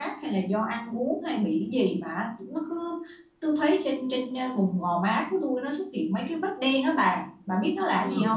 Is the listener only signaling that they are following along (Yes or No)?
No